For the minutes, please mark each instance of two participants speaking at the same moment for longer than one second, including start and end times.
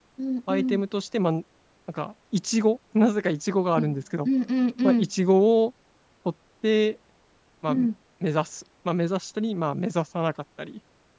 none

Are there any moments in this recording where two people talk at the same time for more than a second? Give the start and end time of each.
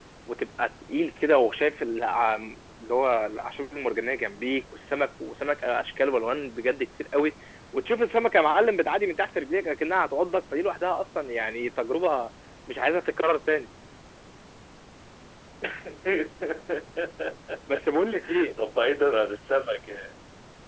none

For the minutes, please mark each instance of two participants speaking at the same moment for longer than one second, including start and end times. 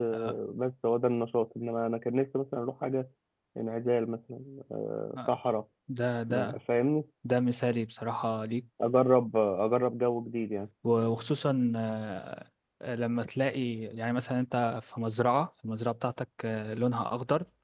none

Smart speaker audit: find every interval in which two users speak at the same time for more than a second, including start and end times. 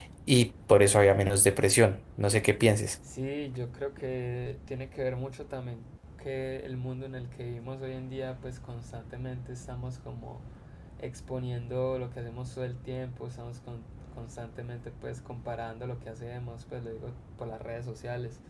none

